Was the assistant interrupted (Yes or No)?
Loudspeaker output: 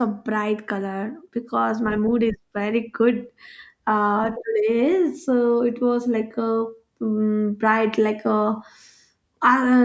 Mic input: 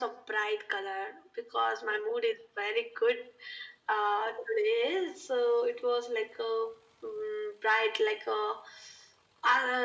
No